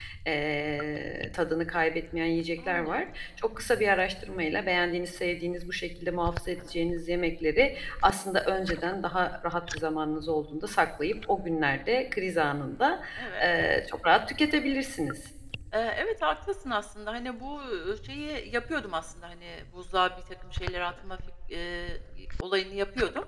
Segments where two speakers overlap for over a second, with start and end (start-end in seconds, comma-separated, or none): none